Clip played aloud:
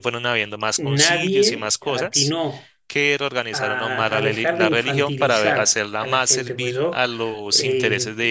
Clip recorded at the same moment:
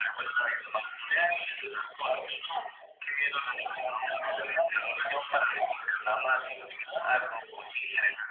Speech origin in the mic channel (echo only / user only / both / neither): echo only